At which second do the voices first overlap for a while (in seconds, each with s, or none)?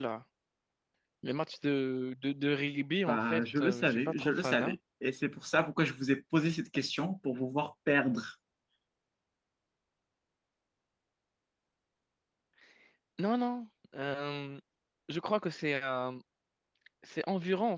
3.1 s